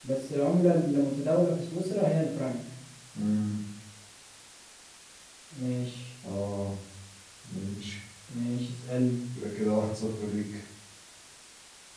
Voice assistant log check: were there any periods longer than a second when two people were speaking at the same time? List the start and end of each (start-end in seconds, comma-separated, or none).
none